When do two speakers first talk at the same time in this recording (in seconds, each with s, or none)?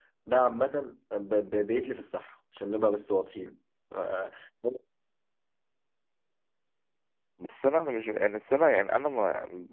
none